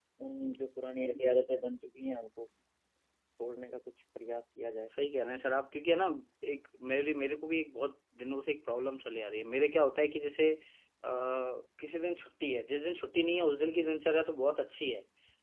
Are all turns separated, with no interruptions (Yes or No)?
Yes